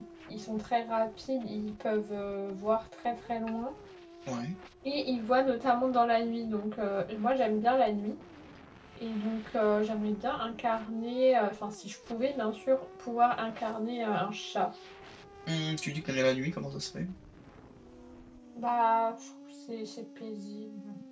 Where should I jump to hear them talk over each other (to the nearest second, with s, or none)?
none